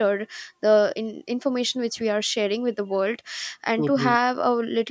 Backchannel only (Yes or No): Yes